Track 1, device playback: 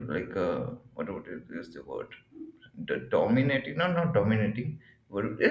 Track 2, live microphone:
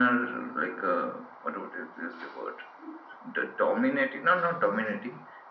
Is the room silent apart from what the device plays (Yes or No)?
Yes